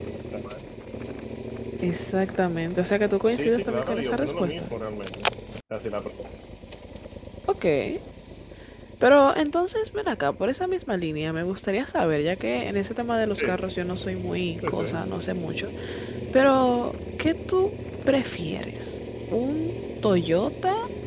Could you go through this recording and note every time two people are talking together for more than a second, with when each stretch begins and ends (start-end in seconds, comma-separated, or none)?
3.3-4.6